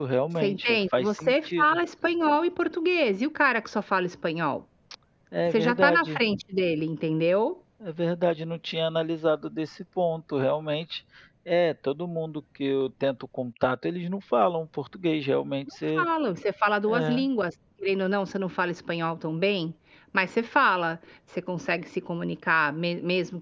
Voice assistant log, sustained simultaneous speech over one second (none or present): present